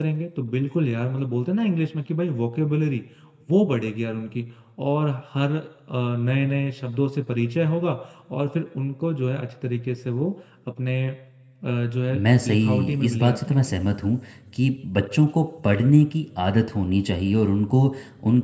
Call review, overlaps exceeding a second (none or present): present